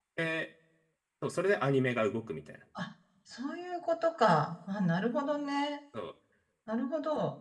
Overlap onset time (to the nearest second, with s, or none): none